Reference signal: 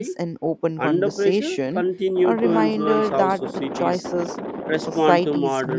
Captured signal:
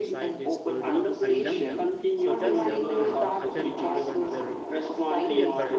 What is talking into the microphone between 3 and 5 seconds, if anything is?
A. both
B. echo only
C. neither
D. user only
A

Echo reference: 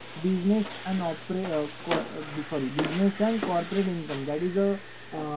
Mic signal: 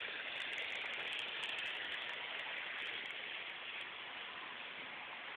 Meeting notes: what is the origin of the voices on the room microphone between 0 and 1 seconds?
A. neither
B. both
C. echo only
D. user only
A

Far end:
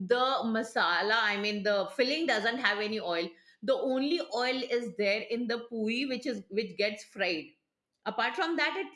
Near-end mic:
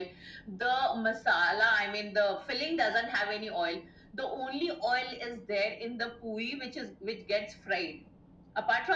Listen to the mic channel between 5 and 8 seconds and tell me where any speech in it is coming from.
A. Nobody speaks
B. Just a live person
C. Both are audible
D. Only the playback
D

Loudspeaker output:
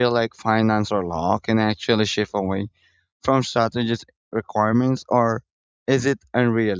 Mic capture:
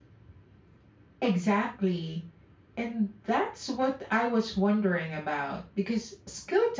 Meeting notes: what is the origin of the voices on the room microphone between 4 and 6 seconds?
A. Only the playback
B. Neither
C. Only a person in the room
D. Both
C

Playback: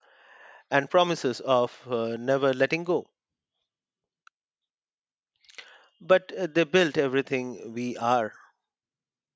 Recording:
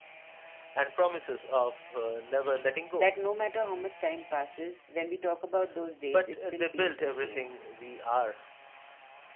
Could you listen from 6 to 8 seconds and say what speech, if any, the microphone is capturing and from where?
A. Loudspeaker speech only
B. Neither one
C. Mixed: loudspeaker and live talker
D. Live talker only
C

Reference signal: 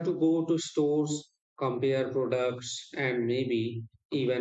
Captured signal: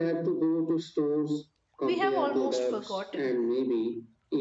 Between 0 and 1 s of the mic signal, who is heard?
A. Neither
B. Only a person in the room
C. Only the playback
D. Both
C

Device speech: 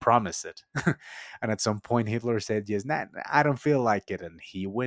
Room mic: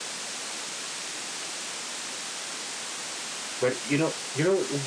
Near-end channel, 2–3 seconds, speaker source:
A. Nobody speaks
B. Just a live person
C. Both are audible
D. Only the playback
A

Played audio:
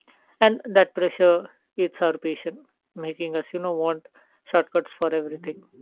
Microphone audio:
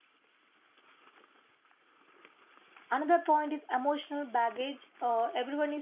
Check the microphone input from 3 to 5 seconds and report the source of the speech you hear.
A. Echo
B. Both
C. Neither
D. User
D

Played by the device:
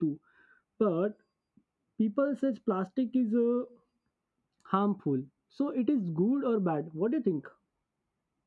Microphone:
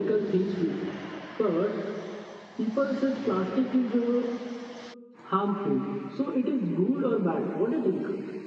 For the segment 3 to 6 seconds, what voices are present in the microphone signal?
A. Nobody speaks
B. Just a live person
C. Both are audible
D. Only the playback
D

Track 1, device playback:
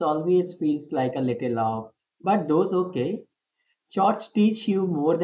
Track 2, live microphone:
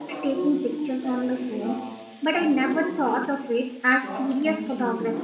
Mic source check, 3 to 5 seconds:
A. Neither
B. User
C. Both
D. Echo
C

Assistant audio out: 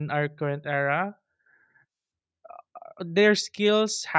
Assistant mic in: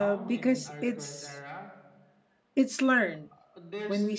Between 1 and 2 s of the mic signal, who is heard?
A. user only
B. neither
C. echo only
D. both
D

